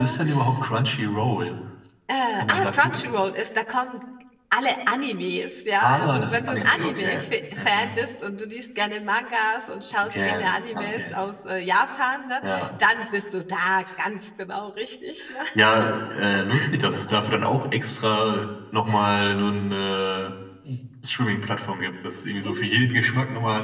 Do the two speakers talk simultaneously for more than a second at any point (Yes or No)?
Yes